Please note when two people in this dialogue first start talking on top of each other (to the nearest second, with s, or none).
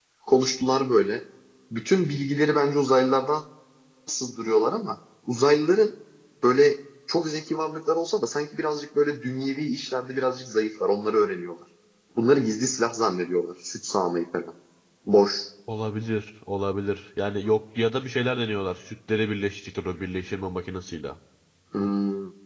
none